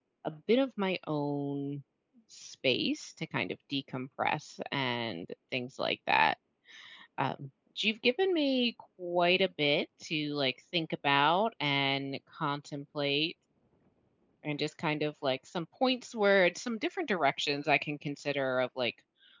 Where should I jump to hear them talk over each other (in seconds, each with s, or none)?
none